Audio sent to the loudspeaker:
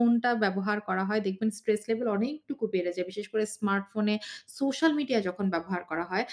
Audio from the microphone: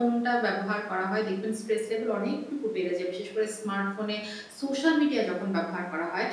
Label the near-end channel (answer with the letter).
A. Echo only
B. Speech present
A